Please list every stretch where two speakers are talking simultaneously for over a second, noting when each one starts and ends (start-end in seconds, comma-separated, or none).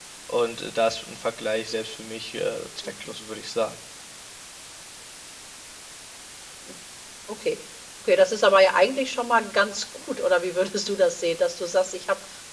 none